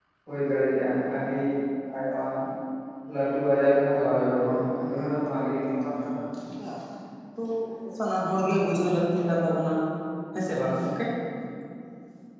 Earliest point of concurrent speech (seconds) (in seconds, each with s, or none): 3.9 s